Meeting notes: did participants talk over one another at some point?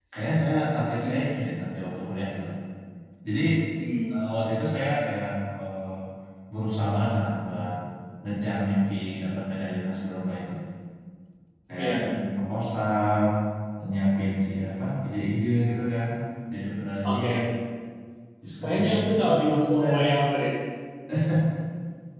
Yes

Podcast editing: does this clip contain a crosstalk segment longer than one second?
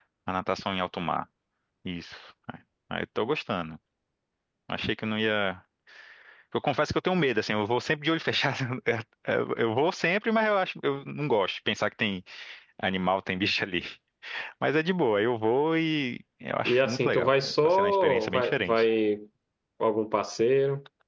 Yes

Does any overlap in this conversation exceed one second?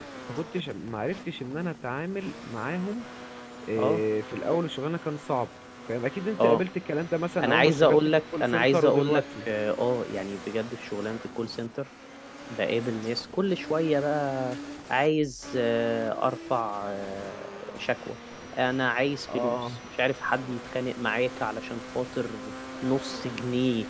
Yes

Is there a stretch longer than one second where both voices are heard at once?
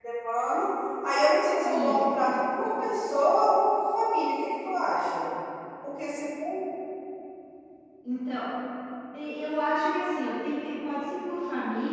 No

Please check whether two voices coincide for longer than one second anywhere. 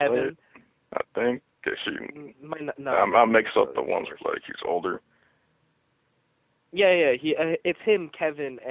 Yes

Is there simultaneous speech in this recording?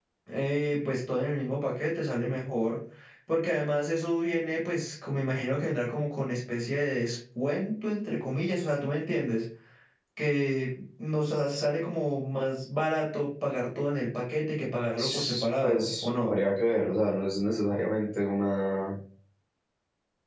Yes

